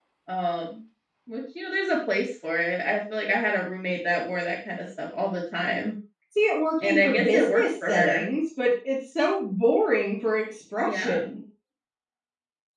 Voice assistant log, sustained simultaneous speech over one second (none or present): present